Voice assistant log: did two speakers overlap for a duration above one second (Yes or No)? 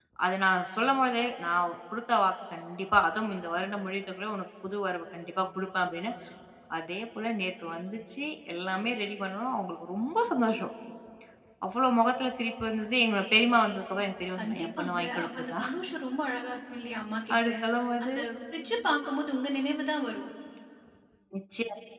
Yes